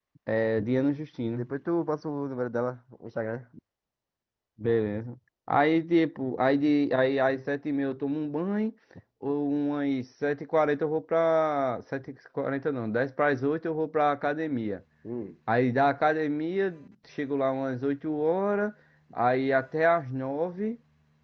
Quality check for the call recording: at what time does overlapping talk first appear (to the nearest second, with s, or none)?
none